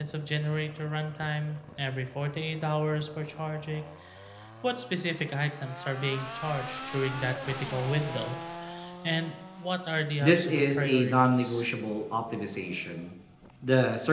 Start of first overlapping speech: 10 s

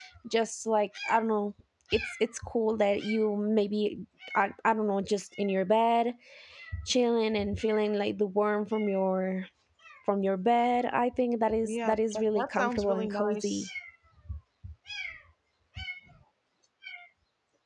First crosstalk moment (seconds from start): 12 s

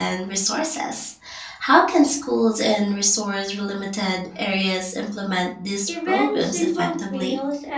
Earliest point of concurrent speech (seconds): 6 s

